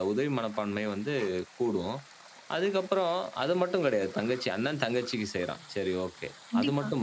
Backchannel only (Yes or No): Yes